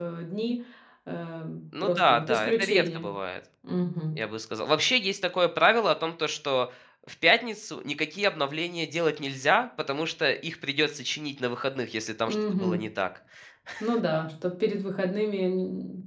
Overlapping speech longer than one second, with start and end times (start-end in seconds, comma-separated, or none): 1.8-3.1